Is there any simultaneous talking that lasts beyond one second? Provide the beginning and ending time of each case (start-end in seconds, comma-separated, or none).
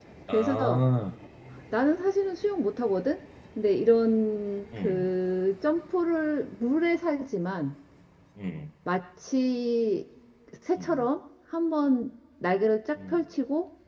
none